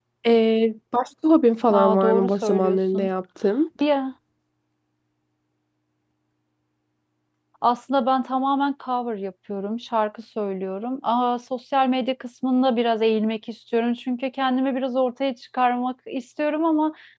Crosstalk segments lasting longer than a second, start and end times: 1.7-3.1

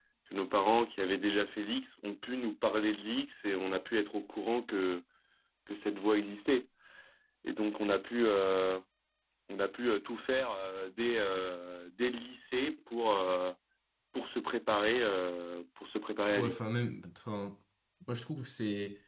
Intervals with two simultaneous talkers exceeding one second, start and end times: none

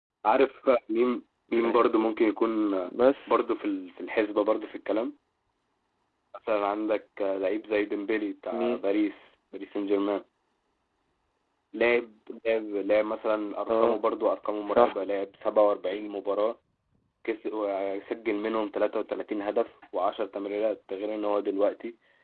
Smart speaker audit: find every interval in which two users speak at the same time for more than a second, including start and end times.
none

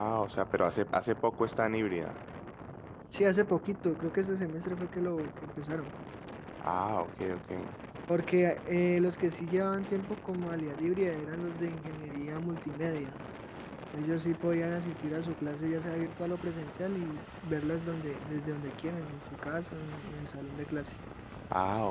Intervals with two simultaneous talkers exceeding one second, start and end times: none

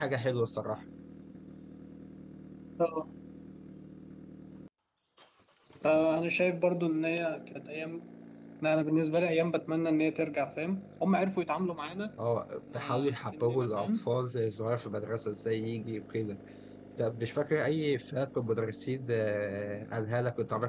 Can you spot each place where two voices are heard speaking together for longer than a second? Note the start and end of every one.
12.7-14.1

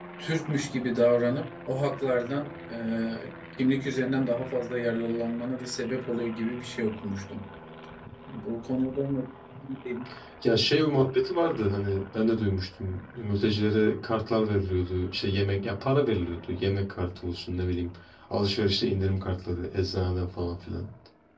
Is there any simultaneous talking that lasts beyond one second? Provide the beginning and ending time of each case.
none

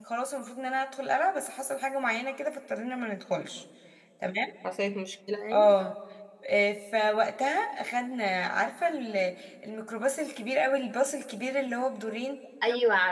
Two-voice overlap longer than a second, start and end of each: none

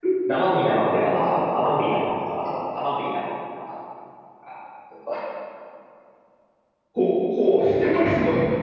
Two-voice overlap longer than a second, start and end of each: none

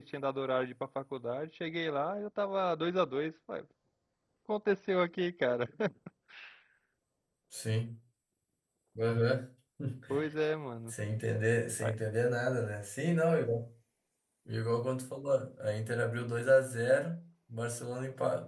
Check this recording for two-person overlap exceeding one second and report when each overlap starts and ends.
none

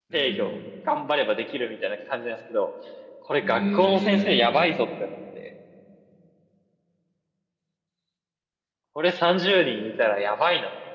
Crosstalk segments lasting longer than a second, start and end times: 3.4-4.6

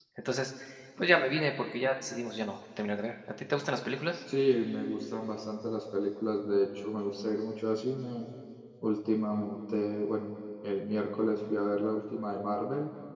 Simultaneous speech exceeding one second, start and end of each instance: none

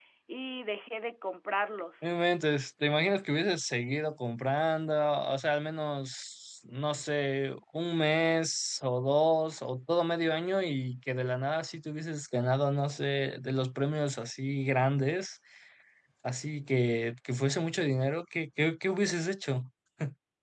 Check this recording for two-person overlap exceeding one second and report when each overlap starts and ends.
none

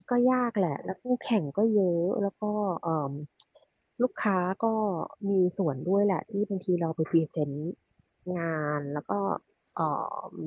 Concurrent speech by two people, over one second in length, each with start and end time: none

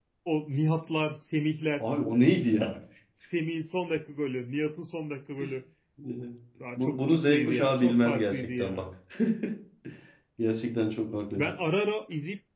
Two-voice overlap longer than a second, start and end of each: 6.8-8.9

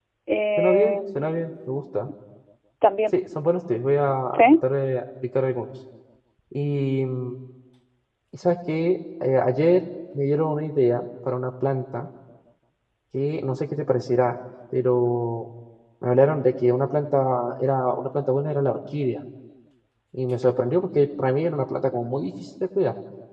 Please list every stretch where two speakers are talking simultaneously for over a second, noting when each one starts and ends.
0.6-2.1

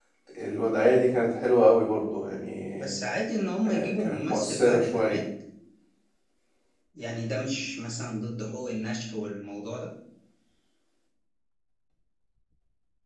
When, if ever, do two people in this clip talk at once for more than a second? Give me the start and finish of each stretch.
3.6-5.2

